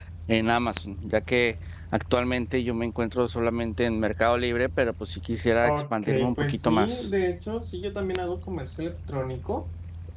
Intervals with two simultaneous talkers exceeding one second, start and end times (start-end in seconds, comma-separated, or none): 5.6-7.1